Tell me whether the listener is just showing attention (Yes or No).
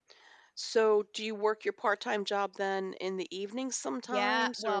No